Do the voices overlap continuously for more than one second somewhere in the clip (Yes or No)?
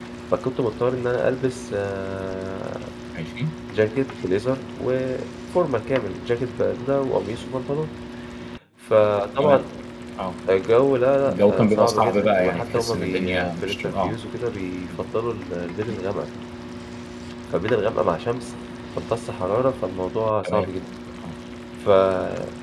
Yes